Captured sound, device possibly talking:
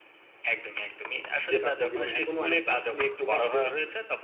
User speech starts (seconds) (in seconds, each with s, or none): 1.5 s